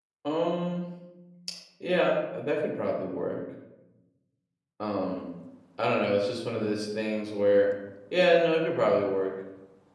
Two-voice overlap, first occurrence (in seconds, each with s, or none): none